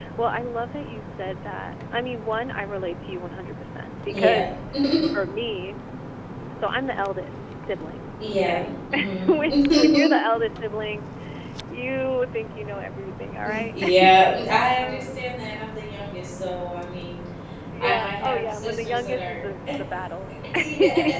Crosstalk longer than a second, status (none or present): present